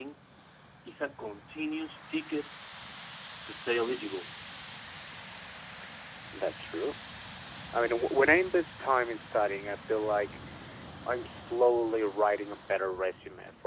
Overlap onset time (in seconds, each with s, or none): none